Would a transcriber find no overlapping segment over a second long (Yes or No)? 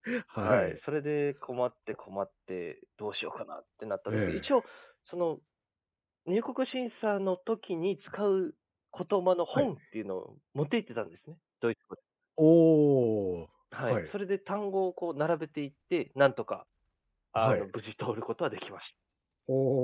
Yes